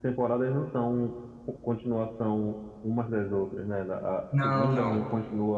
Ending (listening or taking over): listening